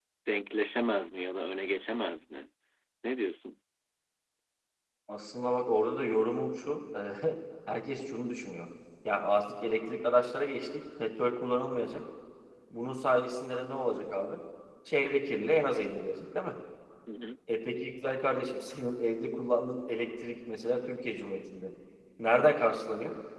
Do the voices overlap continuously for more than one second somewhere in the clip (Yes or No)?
No